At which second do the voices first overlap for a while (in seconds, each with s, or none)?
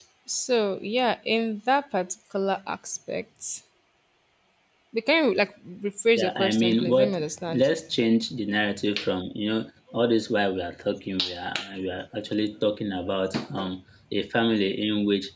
6.2 s